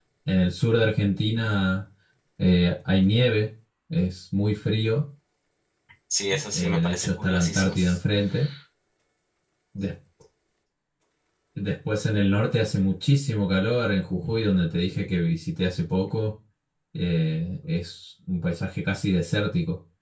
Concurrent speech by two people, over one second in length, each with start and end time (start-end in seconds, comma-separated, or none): 6.3-7.7